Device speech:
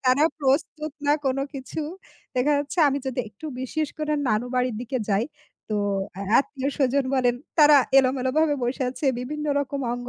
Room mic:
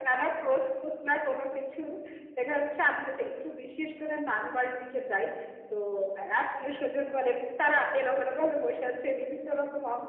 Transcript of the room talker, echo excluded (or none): none